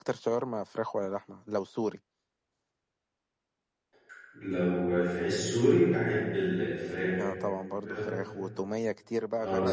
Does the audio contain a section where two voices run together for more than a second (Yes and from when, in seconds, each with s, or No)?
No